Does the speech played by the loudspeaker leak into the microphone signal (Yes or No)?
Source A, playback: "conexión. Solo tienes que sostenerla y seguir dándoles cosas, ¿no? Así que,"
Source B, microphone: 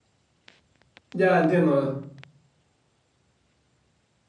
No